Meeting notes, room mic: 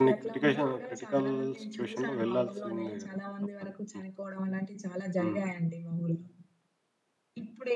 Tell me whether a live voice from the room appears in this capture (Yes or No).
Yes